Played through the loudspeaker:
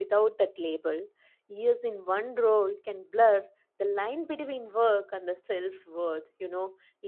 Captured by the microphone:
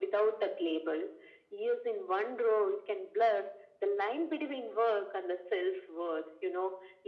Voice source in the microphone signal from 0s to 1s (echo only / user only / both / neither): echo only